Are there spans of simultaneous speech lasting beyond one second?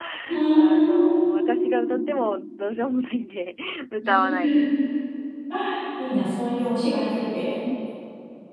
Yes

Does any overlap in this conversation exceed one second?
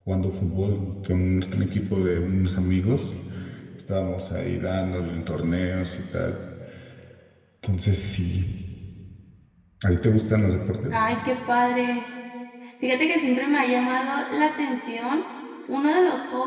No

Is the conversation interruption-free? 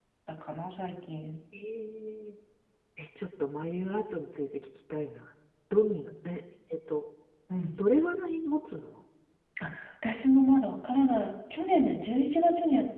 Yes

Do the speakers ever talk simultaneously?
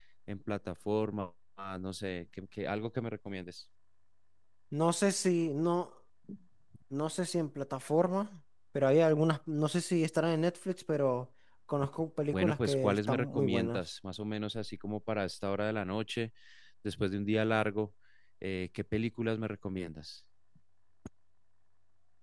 Yes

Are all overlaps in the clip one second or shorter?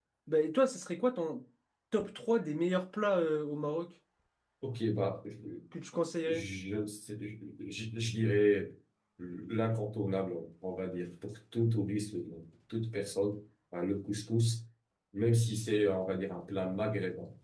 Yes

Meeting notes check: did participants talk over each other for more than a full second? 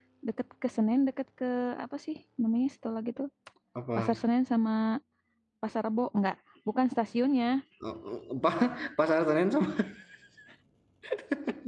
No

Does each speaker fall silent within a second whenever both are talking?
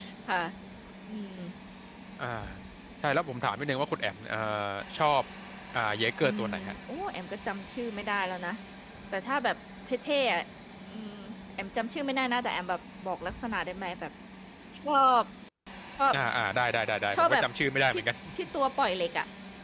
Yes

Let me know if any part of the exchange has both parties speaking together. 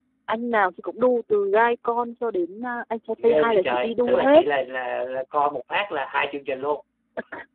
Yes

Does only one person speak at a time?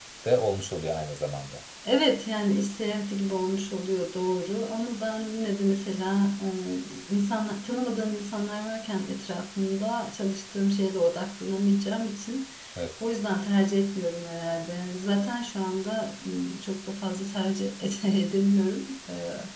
Yes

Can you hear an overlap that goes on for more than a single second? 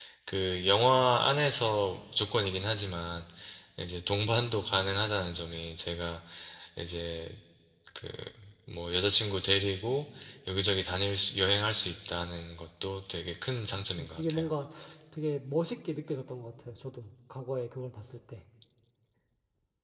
No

